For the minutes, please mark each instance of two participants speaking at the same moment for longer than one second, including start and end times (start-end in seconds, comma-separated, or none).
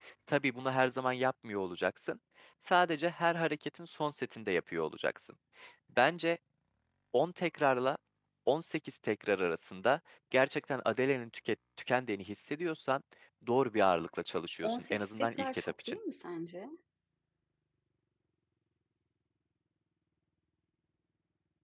14.6-16.0